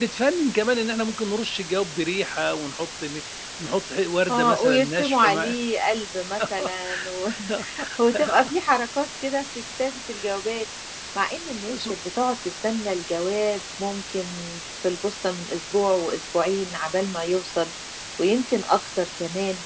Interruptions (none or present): present